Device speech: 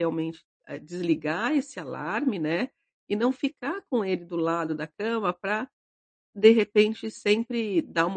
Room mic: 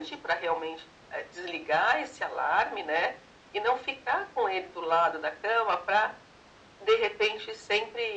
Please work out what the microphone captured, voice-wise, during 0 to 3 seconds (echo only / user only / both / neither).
echo only